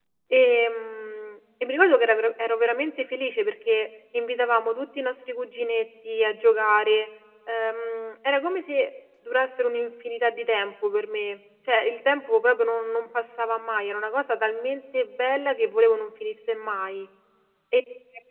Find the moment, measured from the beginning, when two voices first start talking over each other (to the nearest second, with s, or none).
none